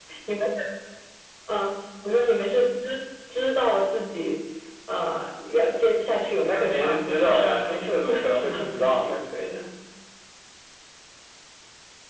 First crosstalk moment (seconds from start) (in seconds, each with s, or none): 6.4 s